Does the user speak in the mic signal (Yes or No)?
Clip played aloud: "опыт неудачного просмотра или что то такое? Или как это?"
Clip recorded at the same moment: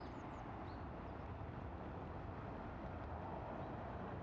No